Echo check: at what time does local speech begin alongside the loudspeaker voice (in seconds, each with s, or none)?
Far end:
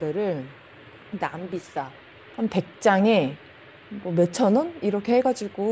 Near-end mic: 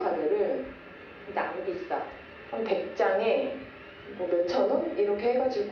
none